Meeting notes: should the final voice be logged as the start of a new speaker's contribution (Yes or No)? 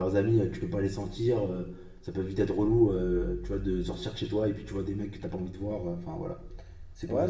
Yes